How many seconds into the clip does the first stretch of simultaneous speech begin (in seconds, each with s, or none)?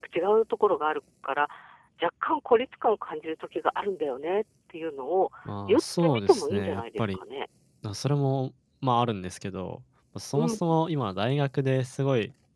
5.7 s